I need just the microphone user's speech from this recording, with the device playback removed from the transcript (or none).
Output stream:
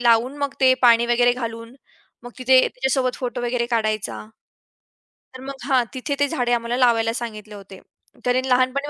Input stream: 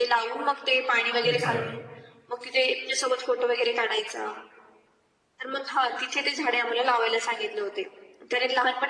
अच्छा.